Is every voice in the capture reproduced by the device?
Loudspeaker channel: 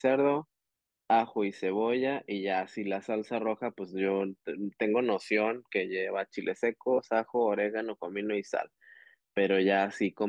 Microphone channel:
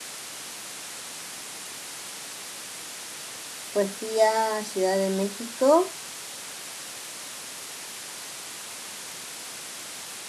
No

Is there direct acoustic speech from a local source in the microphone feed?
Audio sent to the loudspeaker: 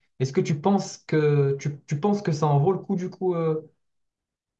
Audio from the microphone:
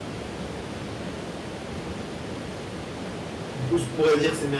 Yes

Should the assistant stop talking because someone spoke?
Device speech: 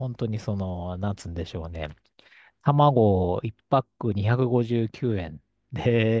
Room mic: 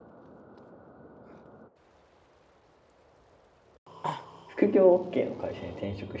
Yes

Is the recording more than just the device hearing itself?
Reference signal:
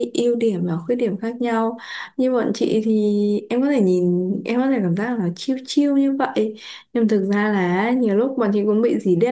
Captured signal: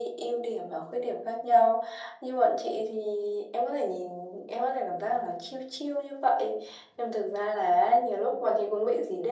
No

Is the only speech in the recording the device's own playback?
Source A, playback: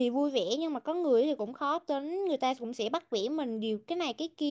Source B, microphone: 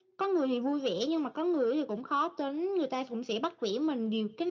Yes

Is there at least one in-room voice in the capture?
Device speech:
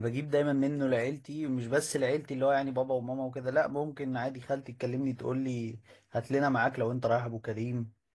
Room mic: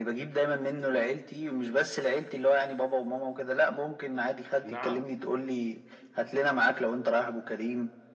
Yes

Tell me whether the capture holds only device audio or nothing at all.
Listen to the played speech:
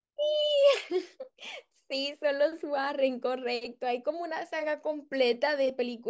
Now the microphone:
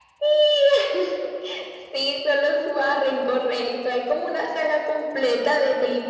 Yes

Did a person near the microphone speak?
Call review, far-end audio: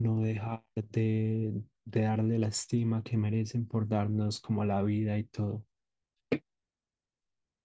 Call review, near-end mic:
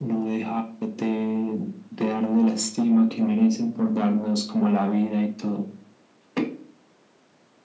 No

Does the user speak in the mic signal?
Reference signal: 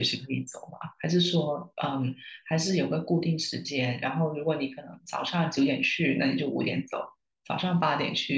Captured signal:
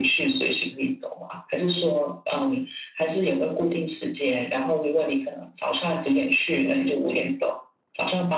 No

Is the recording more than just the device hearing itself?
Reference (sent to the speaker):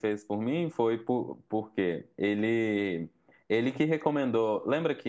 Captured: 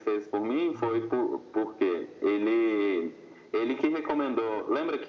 Yes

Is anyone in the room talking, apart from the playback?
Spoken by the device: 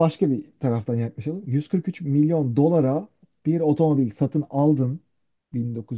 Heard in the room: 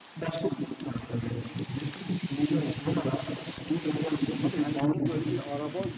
Yes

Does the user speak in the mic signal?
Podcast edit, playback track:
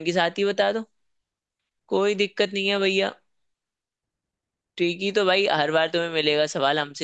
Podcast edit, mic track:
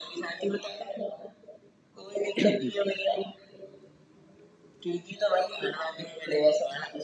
Yes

